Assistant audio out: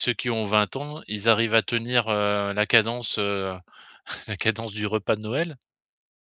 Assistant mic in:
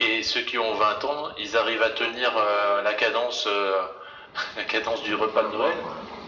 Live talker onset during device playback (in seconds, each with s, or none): 5.0 s